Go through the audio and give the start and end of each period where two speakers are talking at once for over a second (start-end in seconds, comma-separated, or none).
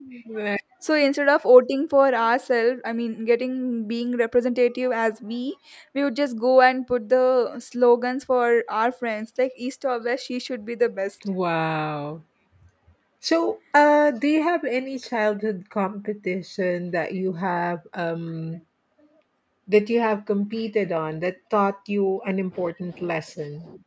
none